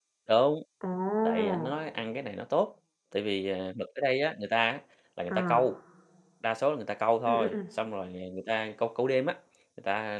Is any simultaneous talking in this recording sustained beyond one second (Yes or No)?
No